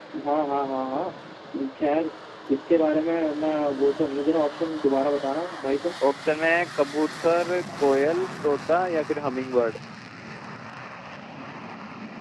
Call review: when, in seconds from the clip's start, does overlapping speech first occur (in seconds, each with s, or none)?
none